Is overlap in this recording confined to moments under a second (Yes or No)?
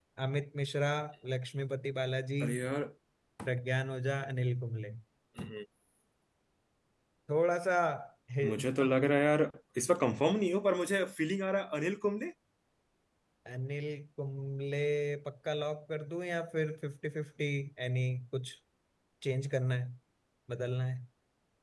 Yes